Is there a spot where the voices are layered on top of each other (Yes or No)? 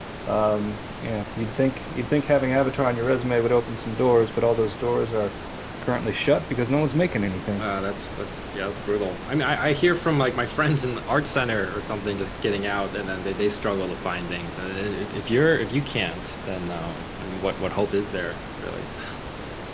No